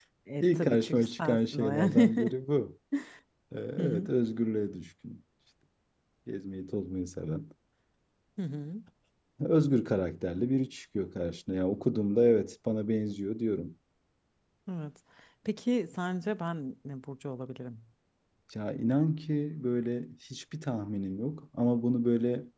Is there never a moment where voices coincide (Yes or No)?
No